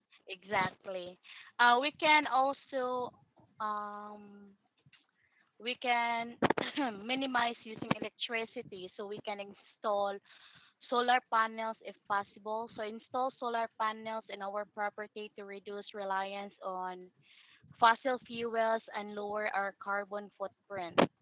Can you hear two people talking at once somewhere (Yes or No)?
No